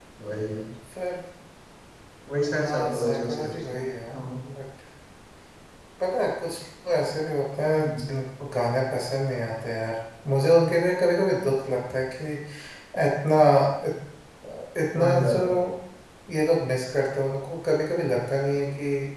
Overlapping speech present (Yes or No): Yes